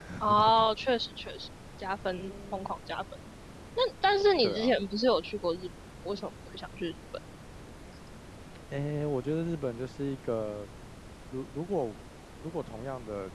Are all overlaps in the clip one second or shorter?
Yes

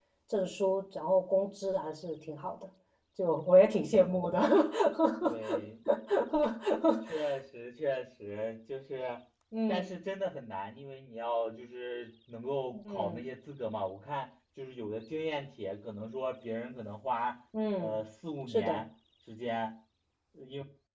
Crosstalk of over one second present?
No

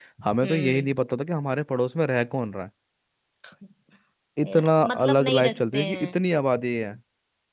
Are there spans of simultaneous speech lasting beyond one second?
Yes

